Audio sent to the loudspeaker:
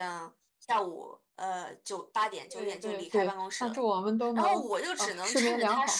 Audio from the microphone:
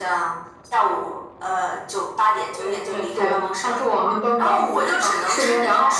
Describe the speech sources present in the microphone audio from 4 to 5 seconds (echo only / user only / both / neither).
echo only